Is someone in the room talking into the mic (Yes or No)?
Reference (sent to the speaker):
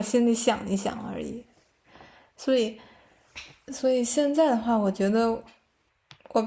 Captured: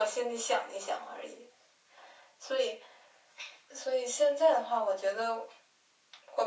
No